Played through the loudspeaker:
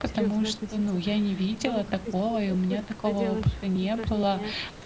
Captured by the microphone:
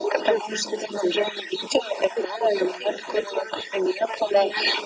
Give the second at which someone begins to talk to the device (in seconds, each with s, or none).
none